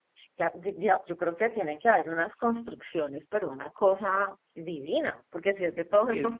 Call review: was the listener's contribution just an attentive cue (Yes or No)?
Yes